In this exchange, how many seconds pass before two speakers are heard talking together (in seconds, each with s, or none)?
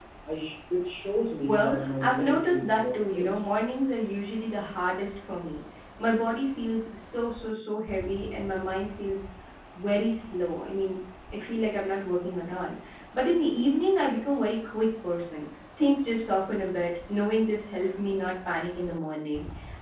1.5 s